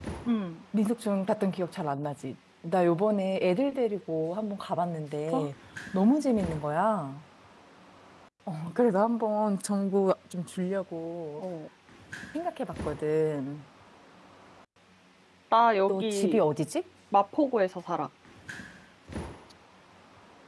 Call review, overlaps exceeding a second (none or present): none